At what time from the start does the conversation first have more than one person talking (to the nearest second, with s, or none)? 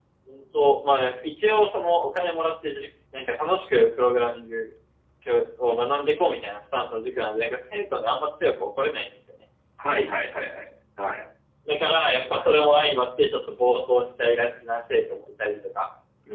none